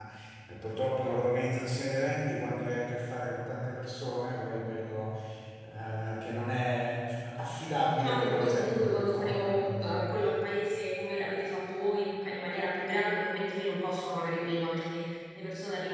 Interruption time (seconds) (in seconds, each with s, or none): 7.9 s